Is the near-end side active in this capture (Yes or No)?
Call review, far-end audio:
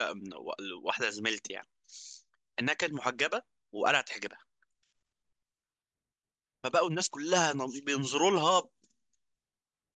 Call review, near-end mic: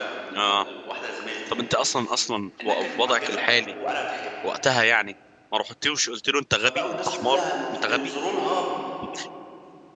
Yes